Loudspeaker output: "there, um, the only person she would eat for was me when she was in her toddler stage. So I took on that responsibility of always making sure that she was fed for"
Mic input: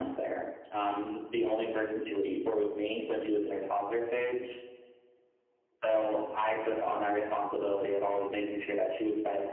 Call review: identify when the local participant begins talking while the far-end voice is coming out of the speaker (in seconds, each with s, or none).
none